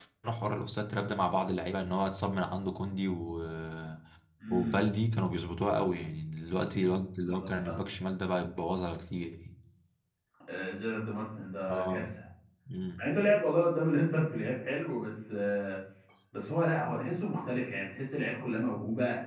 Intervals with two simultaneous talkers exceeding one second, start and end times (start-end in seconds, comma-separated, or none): none